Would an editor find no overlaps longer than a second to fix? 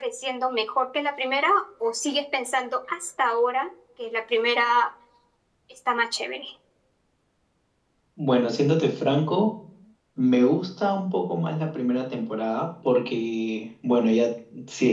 Yes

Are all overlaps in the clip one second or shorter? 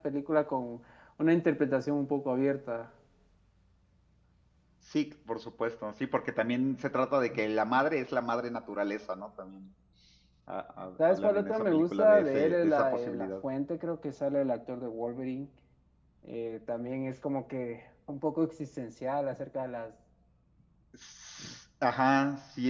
No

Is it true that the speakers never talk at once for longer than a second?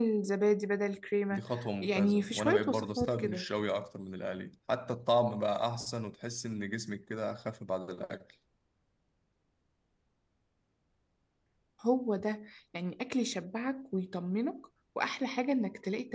No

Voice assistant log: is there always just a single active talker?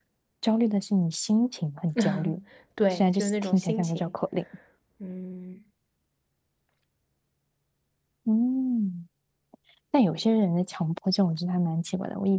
No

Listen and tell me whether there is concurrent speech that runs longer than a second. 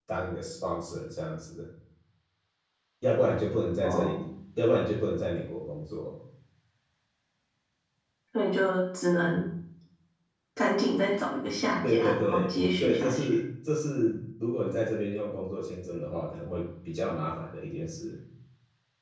Yes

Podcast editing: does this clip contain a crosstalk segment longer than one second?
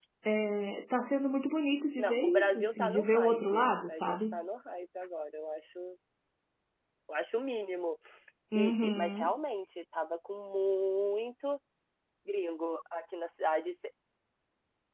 Yes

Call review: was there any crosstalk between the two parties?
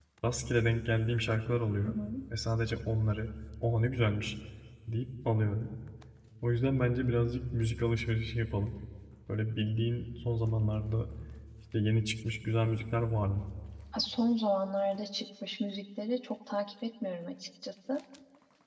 No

